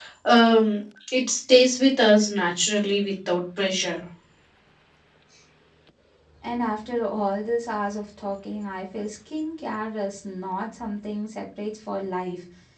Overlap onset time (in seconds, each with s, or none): none